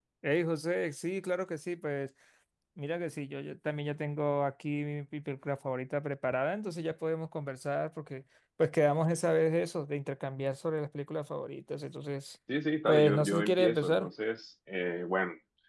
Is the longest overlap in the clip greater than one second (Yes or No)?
Yes